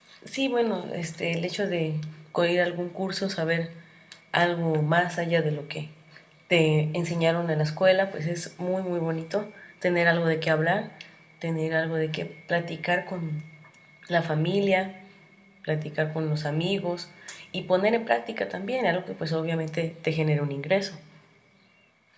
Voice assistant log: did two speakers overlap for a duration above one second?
No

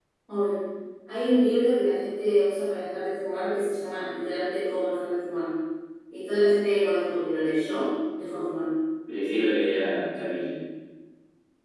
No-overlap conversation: Yes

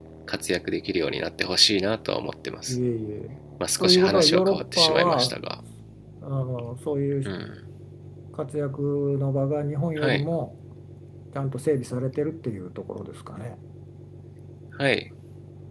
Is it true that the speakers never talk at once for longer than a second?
No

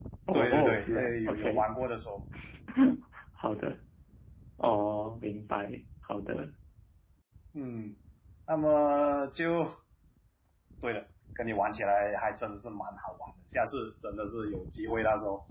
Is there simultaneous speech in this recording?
Yes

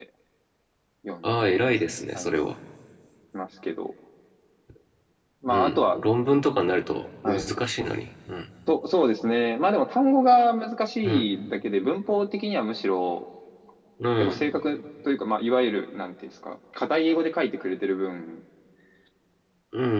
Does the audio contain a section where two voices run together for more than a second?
No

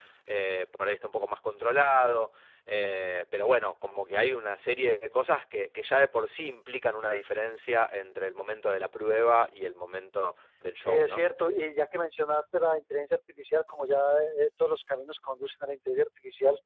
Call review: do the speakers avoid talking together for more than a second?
Yes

